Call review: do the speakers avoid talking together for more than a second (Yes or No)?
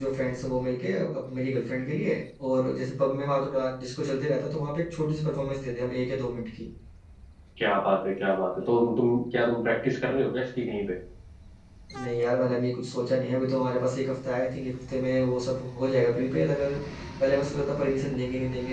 Yes